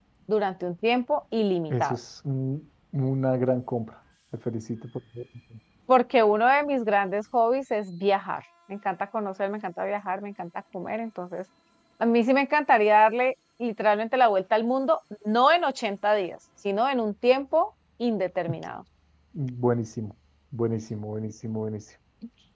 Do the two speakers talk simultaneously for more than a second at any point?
No

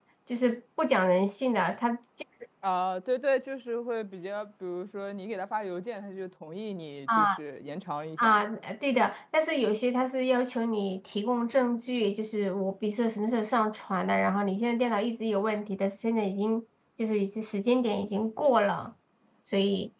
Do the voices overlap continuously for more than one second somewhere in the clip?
No

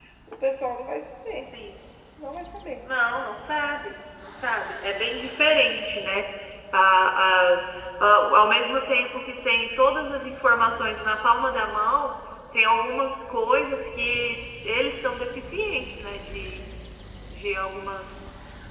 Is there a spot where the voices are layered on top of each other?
No

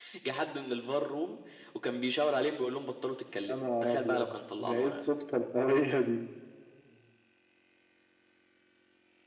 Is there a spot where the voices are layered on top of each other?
Yes, from 3.5 s

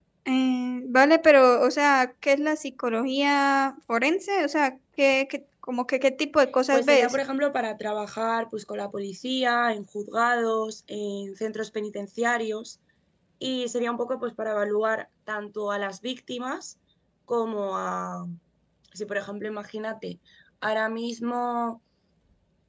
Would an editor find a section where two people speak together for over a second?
No

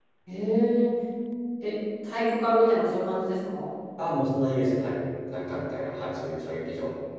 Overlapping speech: No

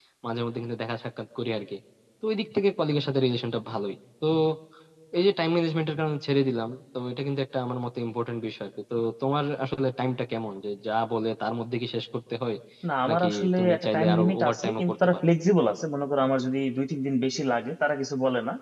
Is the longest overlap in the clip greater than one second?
Yes, from 13.1 s

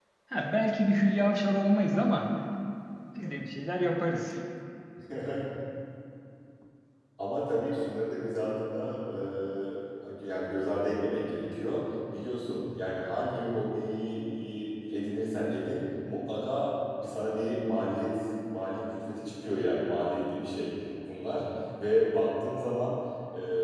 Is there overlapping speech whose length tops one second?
No

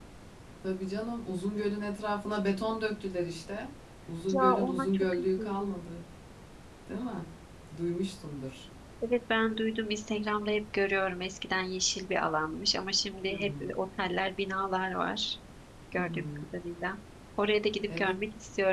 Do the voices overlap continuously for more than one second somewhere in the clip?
Yes, from 4.3 s

